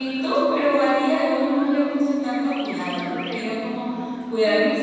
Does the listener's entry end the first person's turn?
No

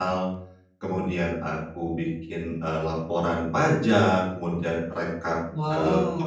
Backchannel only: Yes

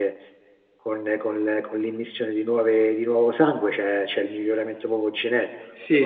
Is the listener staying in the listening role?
No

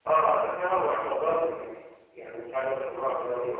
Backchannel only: Yes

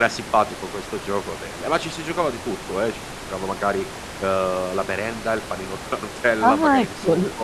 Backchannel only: No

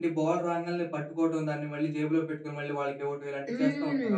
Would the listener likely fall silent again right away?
No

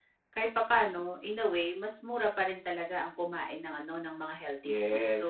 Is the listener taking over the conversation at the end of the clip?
Yes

